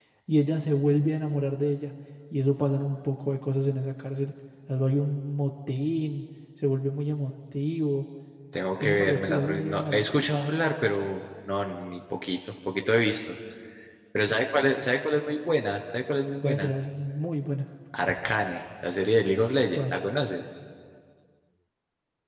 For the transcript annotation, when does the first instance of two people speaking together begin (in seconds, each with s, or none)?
8.8 s